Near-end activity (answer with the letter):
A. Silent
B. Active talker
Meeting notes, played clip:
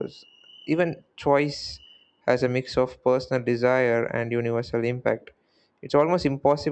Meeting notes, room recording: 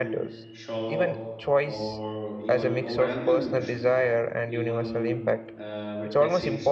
B